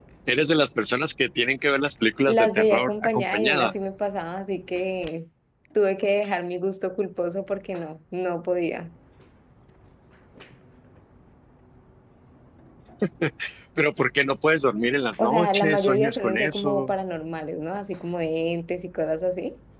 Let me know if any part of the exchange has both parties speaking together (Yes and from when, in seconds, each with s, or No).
Yes, from 2.2 s